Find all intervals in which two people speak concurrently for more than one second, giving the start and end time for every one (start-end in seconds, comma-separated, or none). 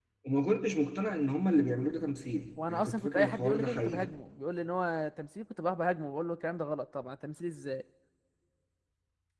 2.7-4.1